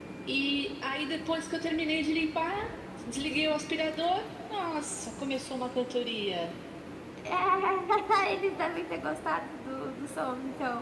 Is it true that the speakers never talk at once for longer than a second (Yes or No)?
Yes